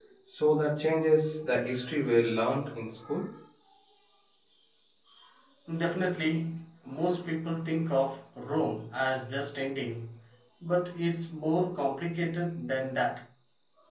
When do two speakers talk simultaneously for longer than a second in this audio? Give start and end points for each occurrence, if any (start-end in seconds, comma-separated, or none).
none